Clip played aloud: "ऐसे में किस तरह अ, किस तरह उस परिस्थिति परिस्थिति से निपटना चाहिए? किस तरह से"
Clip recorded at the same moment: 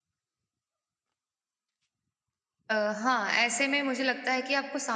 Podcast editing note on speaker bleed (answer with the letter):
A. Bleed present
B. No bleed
B